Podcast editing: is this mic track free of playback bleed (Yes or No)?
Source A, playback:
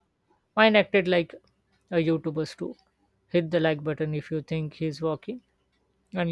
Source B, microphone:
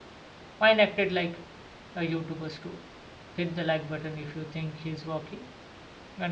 No